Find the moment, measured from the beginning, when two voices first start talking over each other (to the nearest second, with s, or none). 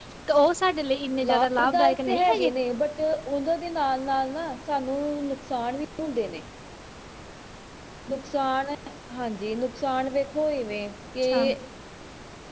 1 s